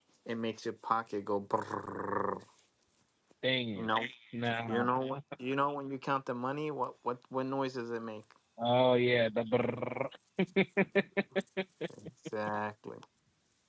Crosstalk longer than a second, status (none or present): none